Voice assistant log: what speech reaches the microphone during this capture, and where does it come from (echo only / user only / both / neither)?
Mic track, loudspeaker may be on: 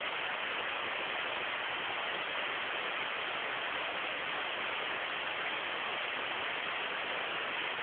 neither